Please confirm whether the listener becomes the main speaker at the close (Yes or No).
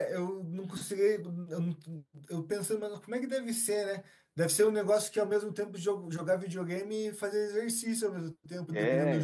Yes